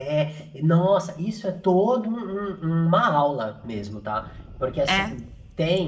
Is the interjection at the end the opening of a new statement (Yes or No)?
No